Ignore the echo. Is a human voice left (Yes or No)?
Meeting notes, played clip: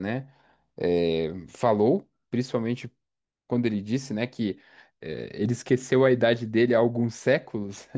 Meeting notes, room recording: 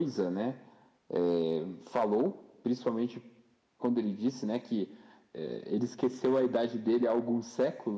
No